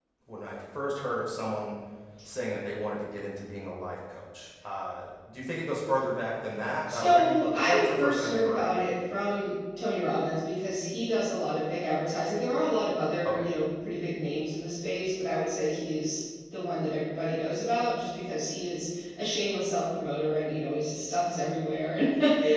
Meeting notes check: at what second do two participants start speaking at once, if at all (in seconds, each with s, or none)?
6.9 s